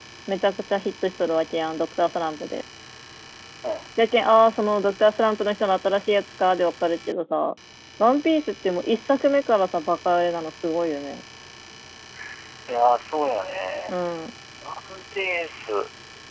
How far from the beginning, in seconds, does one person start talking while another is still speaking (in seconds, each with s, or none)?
none